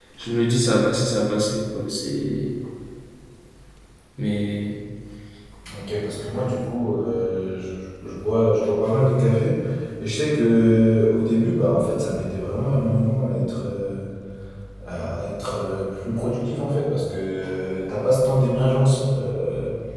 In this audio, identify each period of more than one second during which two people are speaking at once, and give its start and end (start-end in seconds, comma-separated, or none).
none